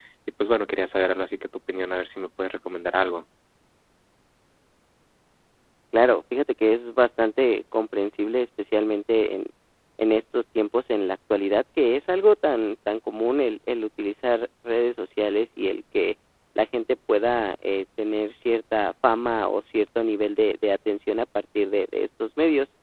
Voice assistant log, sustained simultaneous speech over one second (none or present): none